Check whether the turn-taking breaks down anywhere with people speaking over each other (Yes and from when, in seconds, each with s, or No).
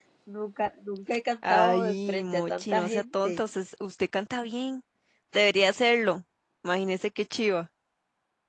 Yes, from 1.4 s